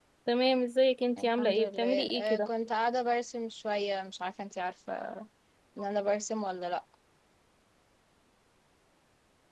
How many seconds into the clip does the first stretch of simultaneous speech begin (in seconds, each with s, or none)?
1.2 s